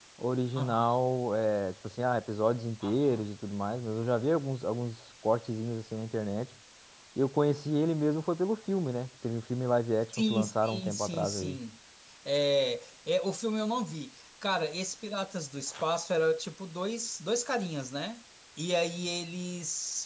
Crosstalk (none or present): present